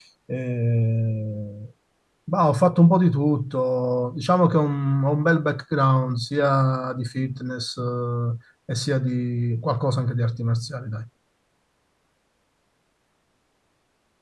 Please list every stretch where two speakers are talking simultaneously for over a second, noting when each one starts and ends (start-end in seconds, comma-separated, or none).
none